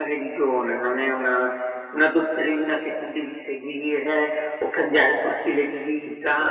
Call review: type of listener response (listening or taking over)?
listening